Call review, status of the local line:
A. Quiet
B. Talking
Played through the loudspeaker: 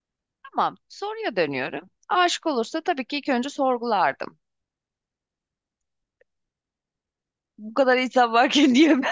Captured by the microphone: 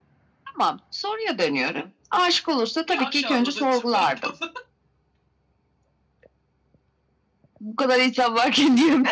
B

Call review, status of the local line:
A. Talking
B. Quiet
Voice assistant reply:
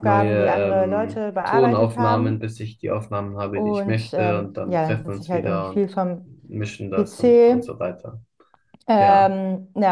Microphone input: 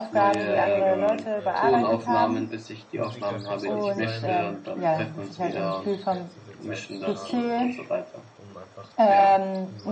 A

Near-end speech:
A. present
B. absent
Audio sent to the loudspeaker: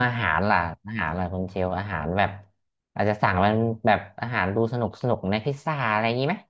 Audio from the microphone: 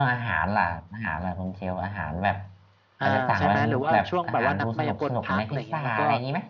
A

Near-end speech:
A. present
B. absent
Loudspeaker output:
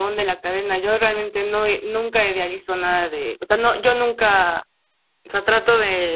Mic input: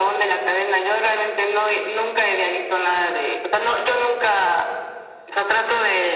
B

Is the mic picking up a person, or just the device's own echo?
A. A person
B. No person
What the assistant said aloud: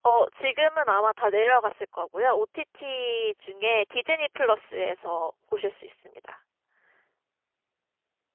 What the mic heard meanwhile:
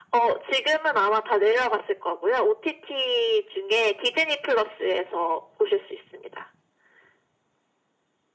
B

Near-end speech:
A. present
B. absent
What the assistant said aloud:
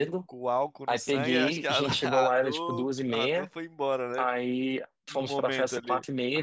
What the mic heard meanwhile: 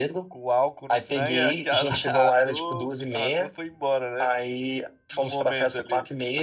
B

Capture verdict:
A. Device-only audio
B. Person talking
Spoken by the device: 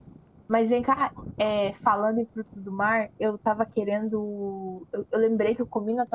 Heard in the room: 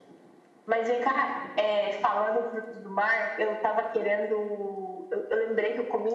A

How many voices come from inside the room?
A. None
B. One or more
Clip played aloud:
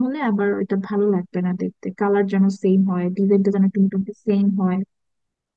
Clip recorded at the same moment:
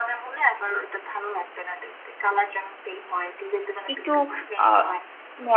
B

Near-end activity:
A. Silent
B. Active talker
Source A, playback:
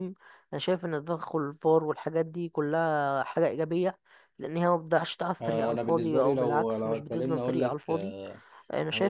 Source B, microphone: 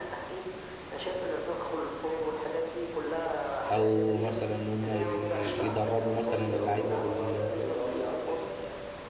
B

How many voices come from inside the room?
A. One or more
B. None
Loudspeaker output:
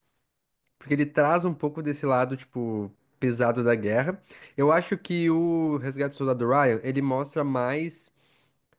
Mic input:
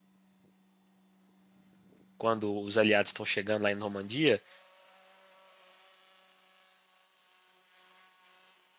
A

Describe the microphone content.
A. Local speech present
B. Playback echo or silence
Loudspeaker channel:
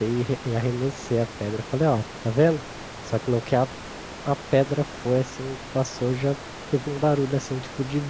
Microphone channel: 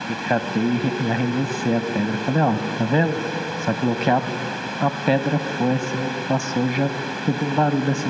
B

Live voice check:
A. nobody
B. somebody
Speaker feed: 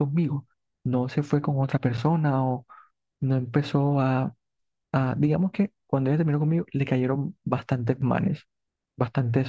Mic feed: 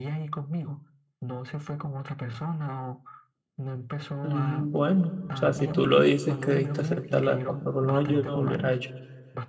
B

